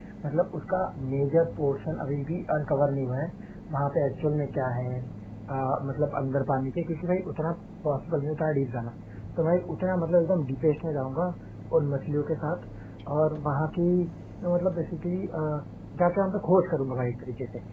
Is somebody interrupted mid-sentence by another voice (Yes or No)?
No